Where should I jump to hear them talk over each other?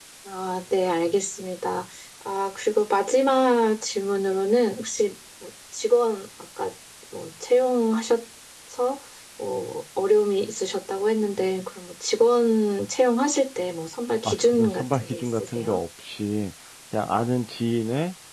14.2 s

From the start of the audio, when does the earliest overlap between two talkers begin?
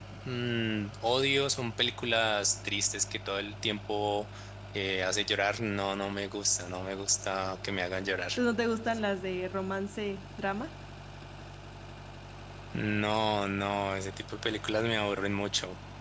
none

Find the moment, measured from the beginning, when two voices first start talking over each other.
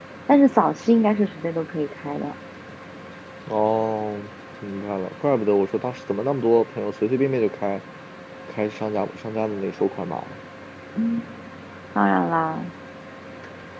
none

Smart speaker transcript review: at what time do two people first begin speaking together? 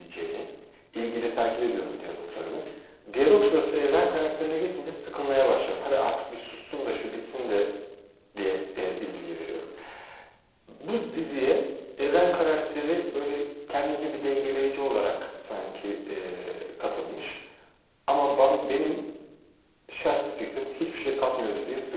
none

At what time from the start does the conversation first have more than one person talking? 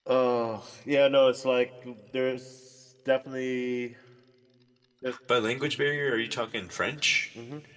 none

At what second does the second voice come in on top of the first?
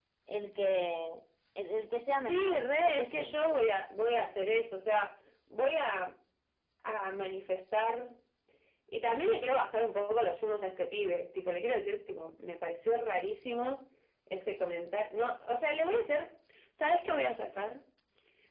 2.2 s

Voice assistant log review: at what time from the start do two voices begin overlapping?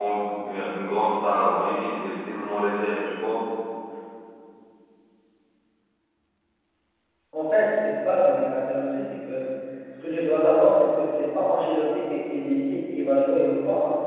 none

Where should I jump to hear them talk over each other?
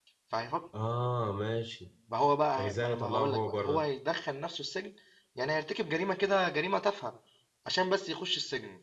2.6 s

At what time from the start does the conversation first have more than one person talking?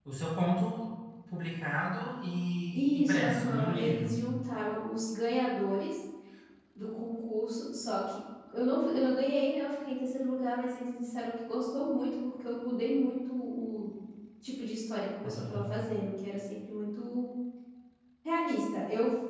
2.7 s

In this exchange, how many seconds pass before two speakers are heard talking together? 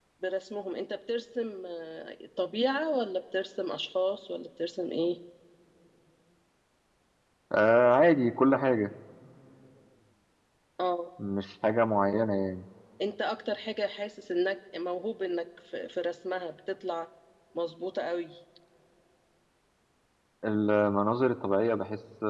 none

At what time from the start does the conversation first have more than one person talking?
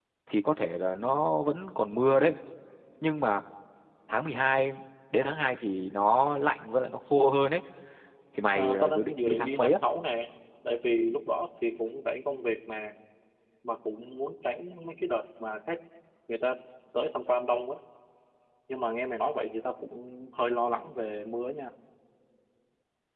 8.6 s

